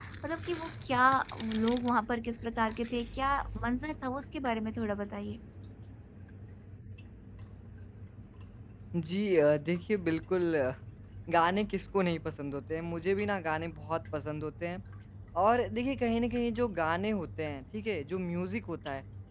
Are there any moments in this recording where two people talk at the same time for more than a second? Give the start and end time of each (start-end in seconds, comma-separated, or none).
none